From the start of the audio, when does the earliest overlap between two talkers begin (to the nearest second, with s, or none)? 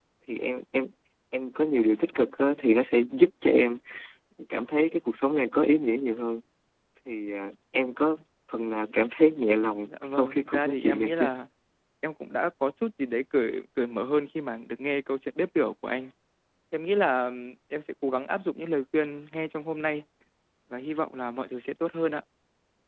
10 s